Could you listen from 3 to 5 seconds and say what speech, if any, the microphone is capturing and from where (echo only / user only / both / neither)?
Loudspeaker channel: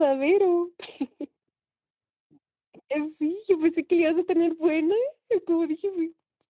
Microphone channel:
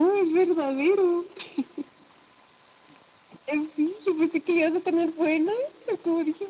echo only